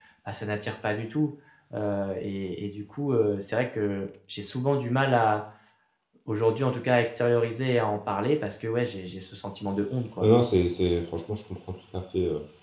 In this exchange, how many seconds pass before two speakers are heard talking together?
none

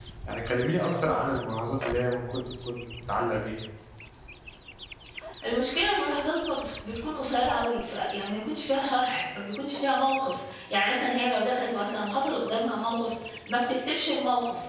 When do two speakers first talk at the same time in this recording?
none

